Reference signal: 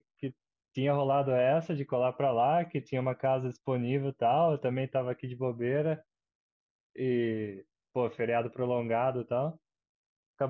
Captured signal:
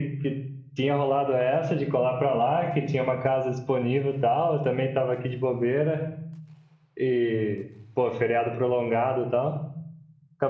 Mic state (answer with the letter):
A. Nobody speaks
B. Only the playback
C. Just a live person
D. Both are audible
B